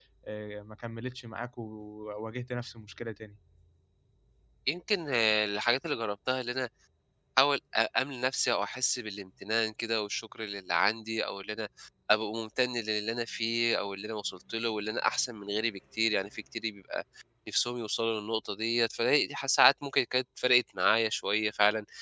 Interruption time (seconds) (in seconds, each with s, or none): none